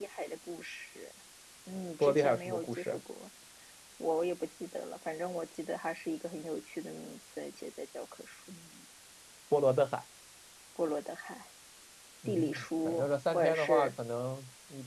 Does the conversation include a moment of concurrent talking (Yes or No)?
Yes